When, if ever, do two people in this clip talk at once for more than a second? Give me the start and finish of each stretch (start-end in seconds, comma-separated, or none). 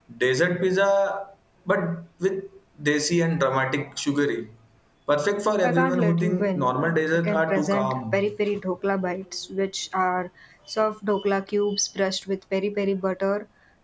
5.6-8.2